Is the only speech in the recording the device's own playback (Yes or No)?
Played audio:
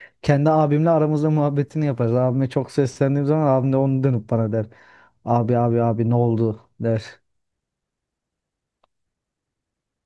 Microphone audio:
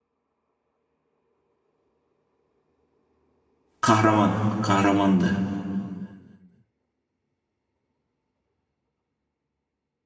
No